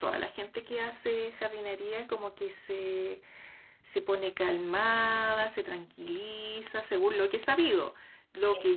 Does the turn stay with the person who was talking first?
No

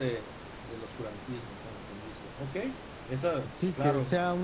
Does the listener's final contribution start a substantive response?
Yes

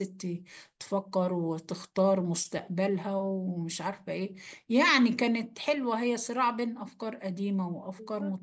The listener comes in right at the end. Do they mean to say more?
Yes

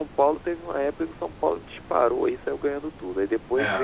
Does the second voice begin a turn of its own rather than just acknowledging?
No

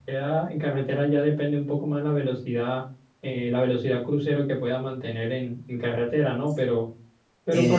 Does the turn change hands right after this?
Yes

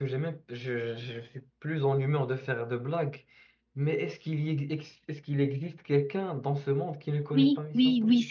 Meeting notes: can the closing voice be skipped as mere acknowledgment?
No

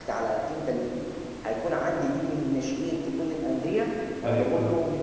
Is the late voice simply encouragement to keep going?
Yes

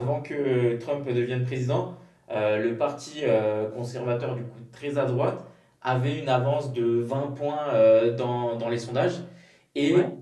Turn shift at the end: No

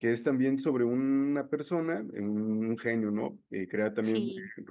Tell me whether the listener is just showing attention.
Yes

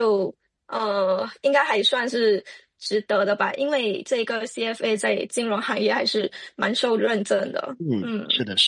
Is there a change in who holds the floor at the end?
Yes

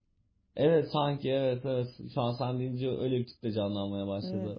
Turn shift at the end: Yes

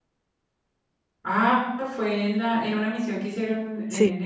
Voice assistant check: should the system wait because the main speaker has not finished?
No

